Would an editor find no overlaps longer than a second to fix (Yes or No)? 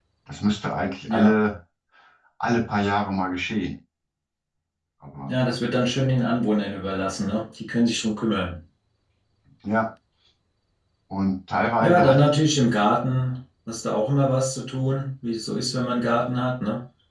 Yes